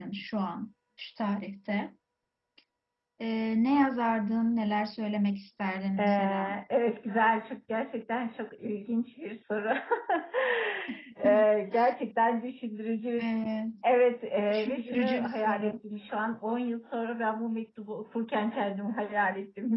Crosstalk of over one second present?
Yes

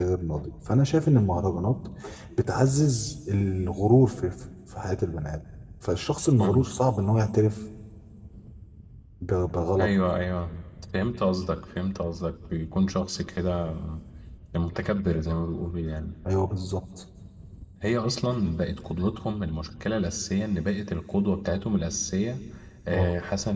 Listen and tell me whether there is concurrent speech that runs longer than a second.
No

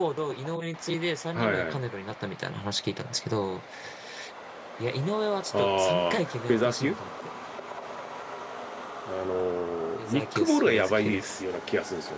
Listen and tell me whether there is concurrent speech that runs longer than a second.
Yes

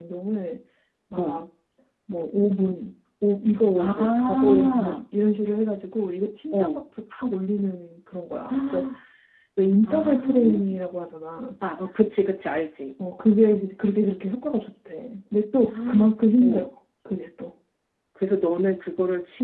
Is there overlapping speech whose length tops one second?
Yes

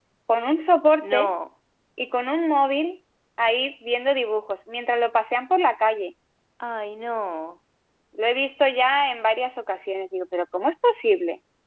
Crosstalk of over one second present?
No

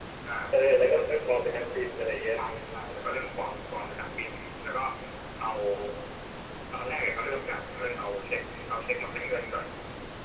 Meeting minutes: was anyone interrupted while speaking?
No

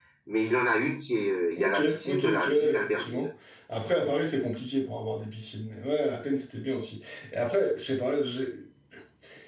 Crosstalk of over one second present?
Yes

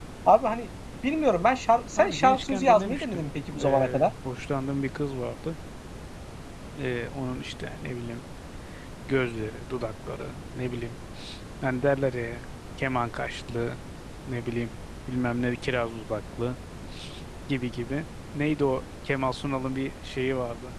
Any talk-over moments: Yes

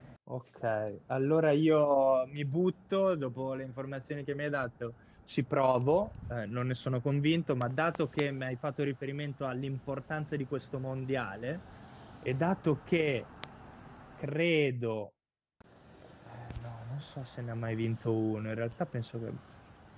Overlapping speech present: No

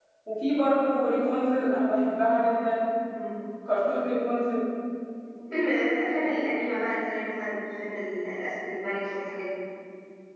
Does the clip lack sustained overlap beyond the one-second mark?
Yes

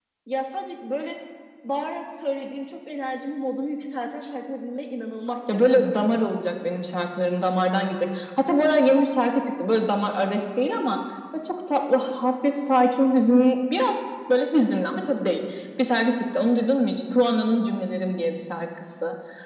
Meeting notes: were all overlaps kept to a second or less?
Yes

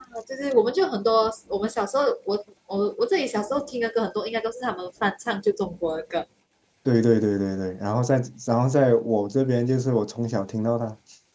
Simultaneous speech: No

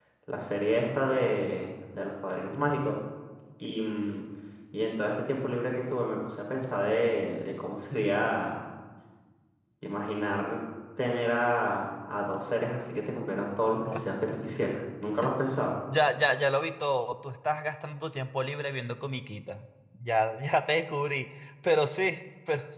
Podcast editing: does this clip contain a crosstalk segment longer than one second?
No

